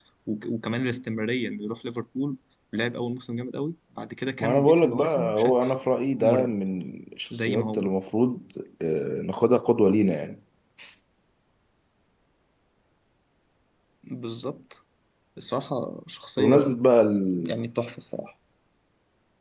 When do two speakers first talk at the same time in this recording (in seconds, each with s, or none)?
4.4 s